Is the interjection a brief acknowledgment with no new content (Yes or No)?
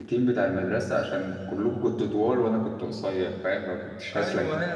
No